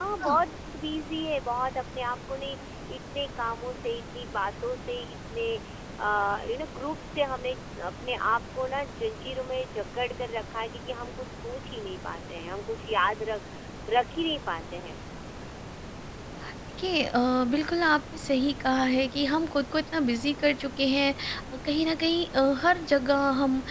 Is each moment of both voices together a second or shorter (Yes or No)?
Yes